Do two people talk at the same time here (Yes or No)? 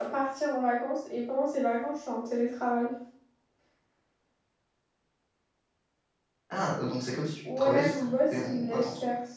Yes